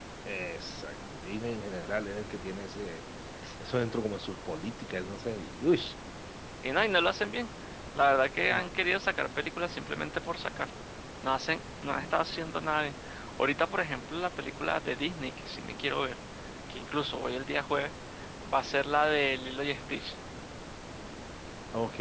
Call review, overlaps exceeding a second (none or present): none